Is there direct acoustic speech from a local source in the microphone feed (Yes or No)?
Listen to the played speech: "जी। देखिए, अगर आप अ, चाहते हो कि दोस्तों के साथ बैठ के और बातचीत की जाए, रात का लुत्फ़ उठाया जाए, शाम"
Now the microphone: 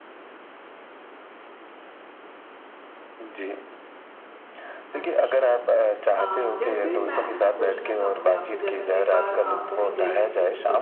Yes